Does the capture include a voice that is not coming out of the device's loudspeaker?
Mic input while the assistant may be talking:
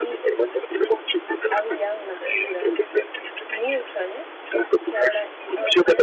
Yes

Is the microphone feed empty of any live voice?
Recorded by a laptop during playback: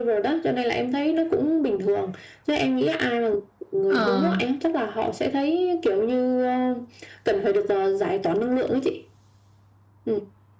No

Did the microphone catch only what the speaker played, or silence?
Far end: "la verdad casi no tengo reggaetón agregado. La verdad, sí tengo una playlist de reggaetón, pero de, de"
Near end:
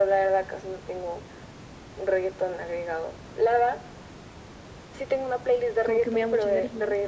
No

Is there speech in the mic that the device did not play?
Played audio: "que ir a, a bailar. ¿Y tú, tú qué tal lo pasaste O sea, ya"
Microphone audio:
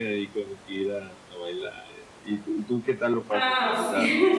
Yes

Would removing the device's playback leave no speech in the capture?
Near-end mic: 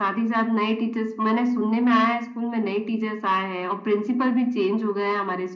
Yes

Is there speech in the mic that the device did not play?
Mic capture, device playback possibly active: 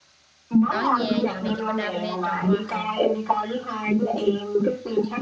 Yes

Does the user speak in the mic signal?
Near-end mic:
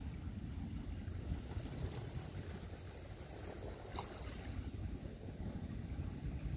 No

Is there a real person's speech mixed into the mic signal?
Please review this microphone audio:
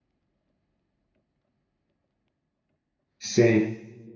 Yes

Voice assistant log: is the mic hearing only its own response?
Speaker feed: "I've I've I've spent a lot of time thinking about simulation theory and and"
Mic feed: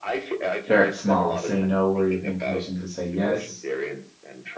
No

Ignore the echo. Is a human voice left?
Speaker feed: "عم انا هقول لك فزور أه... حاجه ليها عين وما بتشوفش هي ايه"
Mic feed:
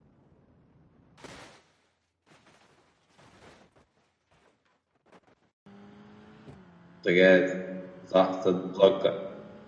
Yes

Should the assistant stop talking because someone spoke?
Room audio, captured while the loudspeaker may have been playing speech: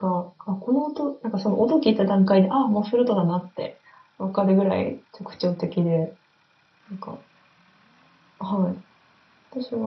Yes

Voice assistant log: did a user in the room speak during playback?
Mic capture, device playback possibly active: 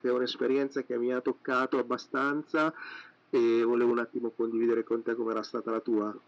No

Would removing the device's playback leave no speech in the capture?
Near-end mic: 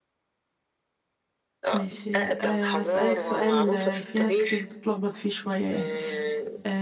No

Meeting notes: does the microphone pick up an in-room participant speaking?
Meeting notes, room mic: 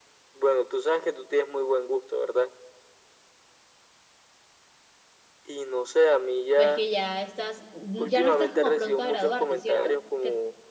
Yes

